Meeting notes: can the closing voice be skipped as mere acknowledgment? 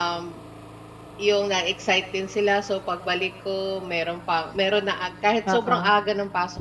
Yes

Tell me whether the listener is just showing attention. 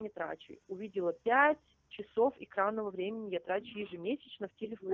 Yes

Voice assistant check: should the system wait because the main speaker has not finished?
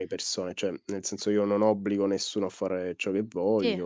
Yes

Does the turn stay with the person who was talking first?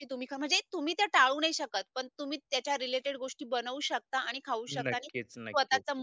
Yes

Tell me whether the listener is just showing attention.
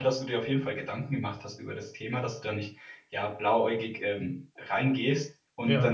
Yes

